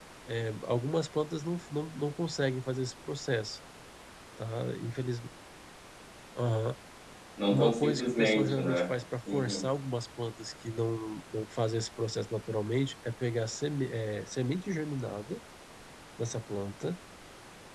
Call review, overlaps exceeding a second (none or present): present